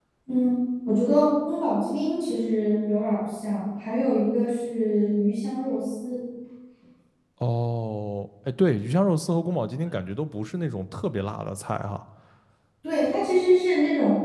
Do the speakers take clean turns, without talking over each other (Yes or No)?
Yes